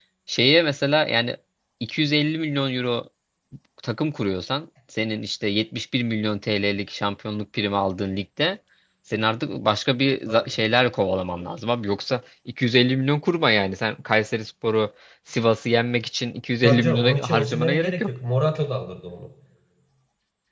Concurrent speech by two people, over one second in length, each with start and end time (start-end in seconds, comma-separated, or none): 16.6-18.1